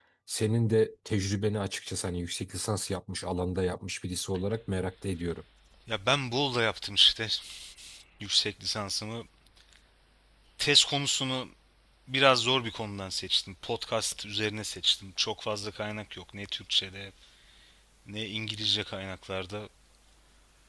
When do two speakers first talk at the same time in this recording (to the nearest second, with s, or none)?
none